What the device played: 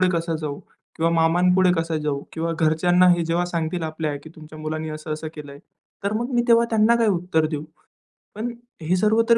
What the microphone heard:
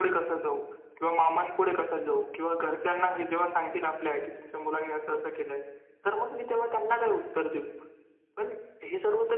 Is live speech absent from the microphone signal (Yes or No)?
Yes